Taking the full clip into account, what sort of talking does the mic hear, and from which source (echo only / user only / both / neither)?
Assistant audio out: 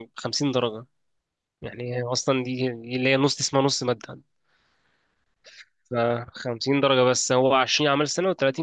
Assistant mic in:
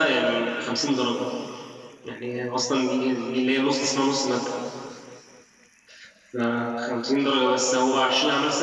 echo only